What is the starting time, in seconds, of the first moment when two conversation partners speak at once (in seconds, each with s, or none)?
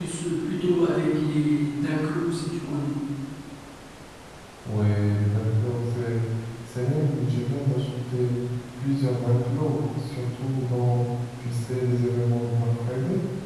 none